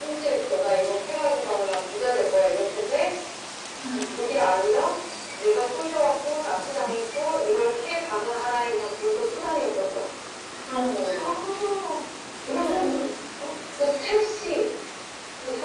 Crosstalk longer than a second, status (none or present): none